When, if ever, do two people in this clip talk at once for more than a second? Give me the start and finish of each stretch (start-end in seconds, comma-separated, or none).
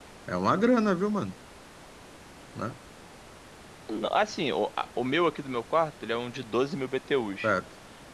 none